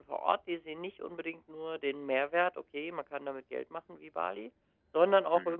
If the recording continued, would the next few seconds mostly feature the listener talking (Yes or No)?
No